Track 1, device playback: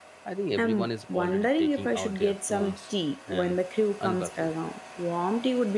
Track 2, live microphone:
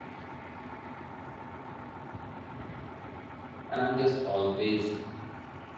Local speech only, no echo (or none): And I'm just always